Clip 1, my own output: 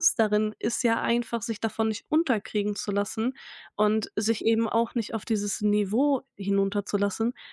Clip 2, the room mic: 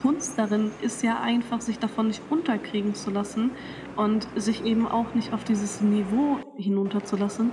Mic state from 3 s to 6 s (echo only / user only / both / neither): echo only